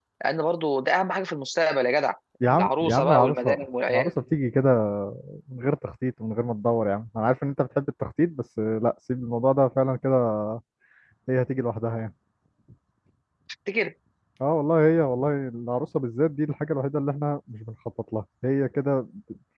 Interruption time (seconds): 2 s

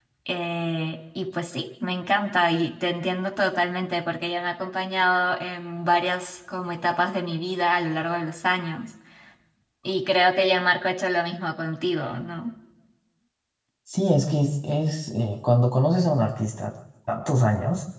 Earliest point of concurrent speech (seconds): none

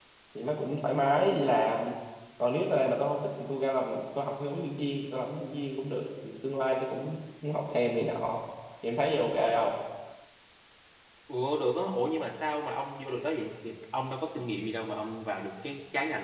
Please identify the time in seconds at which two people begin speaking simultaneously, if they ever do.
none

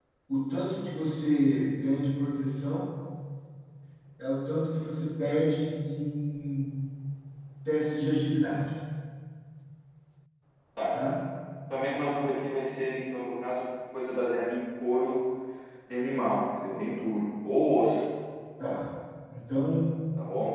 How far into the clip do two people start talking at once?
none

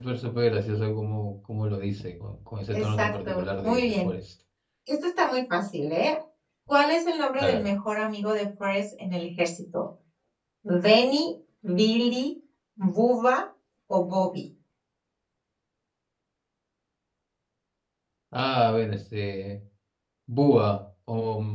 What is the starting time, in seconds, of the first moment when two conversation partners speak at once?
3 s

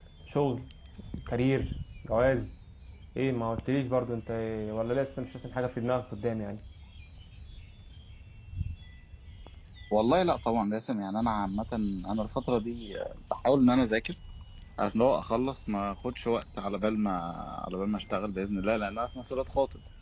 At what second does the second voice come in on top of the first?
none

